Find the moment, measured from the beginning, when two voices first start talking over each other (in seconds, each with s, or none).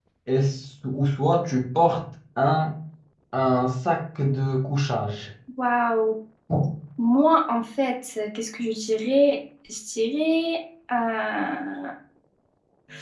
none